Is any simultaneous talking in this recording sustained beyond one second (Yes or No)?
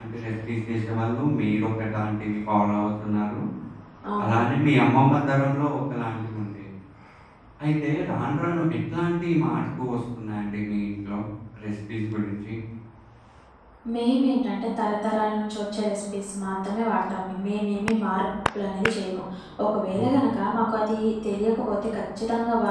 No